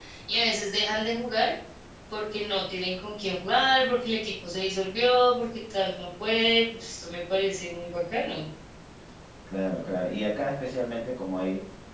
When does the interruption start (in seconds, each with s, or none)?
none